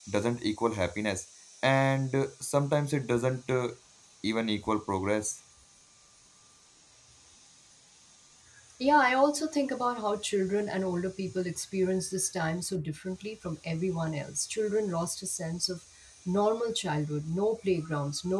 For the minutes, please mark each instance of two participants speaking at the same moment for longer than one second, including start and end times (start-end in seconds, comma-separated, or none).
none